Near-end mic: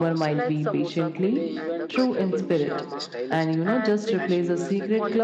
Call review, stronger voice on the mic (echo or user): user